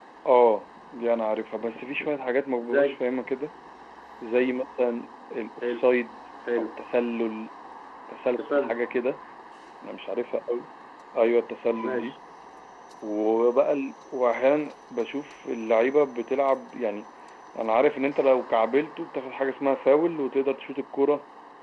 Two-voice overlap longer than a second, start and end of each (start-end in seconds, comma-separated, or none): none